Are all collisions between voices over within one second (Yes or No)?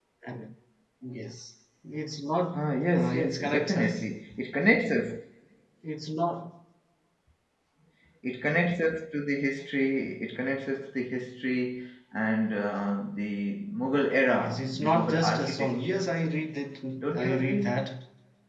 No